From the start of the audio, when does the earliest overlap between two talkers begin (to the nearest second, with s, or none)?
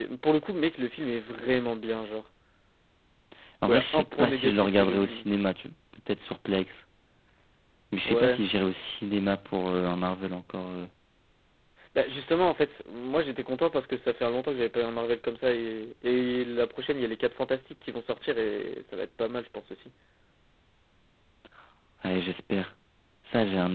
4 s